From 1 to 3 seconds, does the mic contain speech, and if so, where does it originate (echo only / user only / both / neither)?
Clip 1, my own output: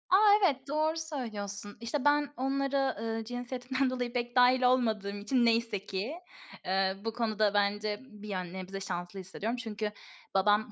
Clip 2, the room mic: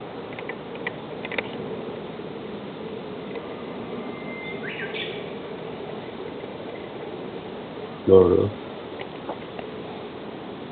neither